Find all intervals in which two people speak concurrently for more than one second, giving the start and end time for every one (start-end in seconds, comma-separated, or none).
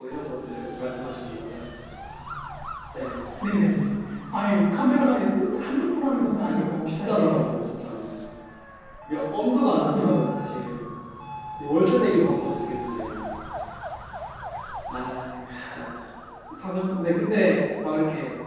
6.2-7.4